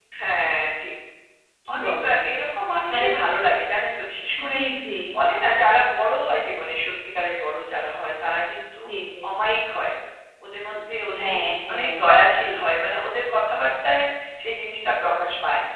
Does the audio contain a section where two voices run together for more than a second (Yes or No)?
No